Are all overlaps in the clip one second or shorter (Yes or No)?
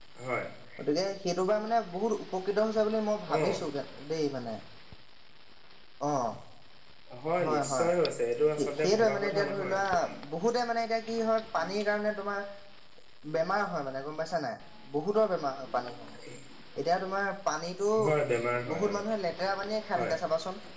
No